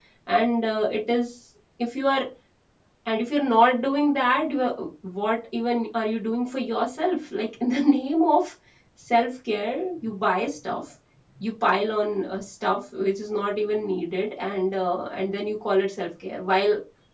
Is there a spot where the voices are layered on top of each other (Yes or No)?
No